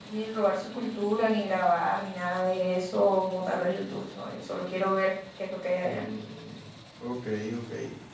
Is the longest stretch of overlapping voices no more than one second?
Yes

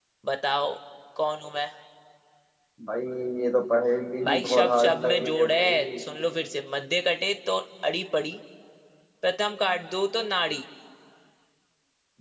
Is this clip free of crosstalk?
No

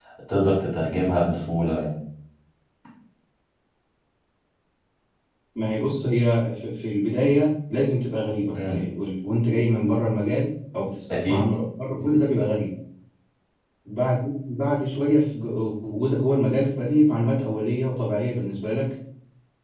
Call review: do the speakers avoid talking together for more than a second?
Yes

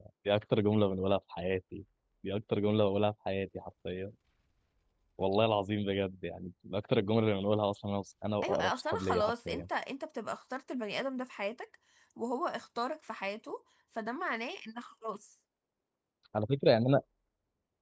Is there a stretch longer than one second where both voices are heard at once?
Yes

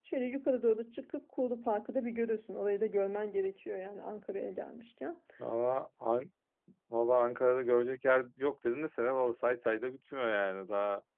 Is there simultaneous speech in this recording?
No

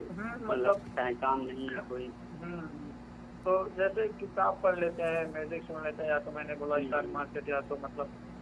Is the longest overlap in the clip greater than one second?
No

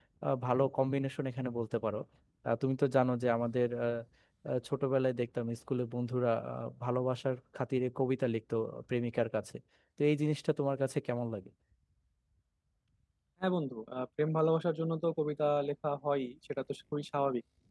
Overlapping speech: No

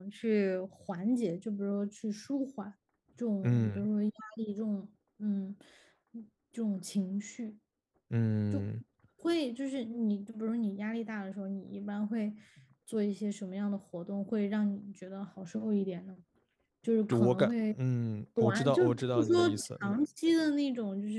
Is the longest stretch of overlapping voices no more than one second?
No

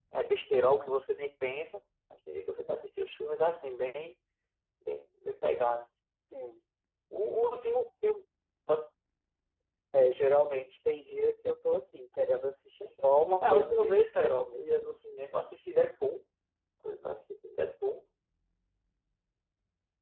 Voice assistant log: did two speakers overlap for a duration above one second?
Yes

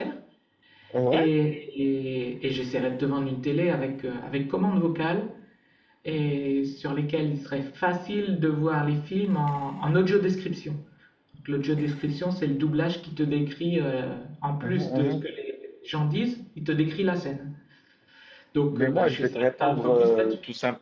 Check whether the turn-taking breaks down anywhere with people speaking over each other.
Yes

